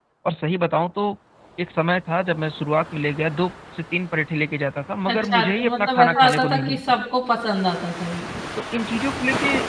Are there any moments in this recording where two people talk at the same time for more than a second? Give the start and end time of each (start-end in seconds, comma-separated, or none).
5.1-7.0